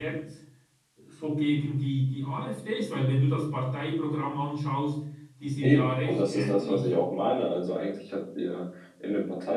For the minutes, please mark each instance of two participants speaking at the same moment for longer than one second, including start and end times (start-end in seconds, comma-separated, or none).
5.6-6.9